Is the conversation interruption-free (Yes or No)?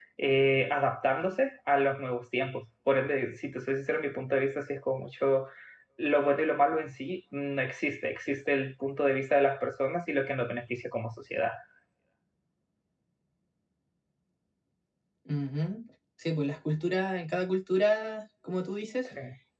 Yes